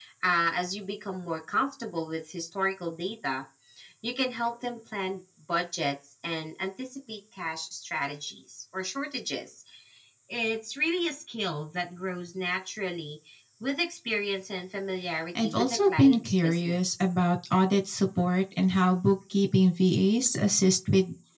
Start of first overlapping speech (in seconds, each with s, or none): 15.3 s